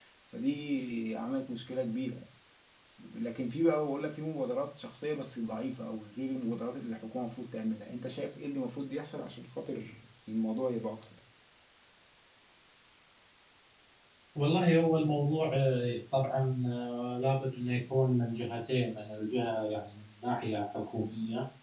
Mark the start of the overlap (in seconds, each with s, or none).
none